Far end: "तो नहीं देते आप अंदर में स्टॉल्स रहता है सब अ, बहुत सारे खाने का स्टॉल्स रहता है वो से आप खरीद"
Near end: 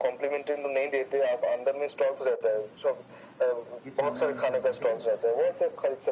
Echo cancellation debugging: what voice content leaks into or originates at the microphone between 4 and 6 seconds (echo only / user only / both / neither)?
both